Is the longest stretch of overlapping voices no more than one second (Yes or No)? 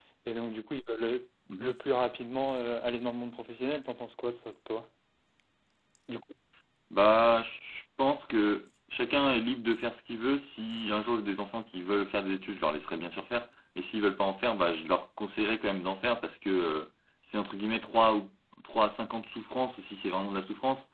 Yes